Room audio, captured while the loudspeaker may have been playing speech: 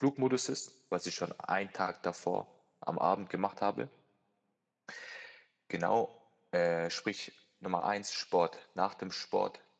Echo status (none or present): none